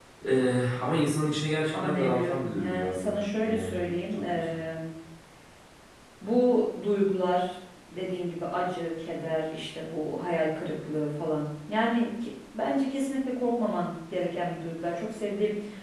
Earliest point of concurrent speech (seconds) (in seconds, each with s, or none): 1.7 s